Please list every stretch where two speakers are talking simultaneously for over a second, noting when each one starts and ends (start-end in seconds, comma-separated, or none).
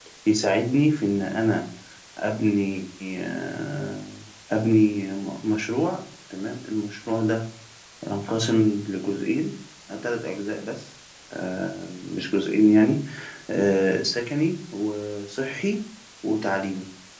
none